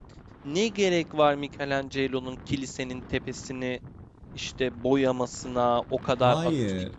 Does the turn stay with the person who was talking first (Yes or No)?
Yes